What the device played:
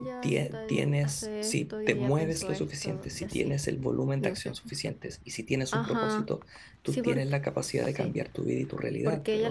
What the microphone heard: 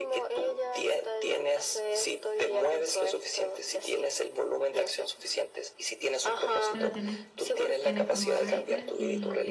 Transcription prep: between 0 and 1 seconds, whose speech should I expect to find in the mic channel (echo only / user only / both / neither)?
echo only